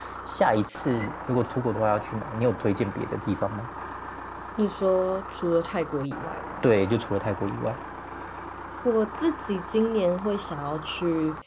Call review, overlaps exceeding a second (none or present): none